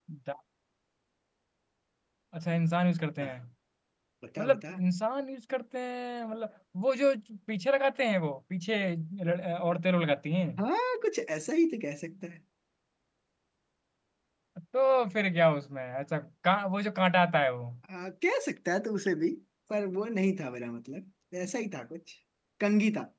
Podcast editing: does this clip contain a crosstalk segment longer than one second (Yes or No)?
No